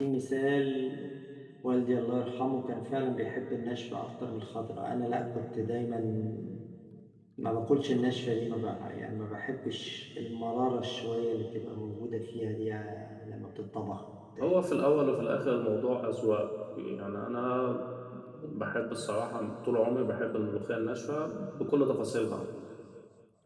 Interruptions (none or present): none